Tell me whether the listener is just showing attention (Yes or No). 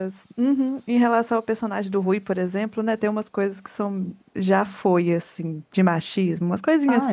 No